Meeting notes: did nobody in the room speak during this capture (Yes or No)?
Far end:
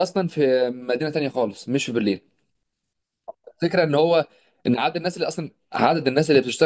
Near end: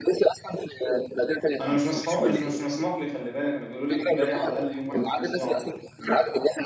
No